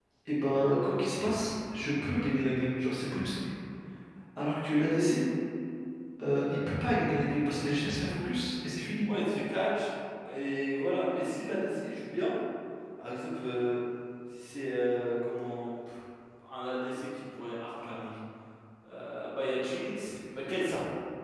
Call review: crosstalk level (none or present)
none